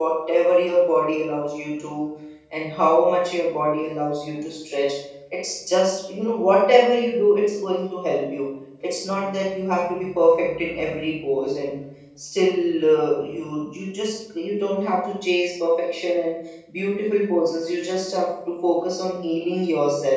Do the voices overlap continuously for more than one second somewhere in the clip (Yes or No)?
No